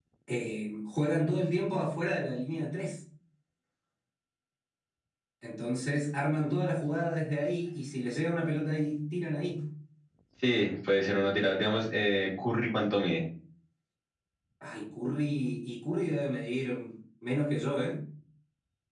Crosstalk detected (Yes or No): No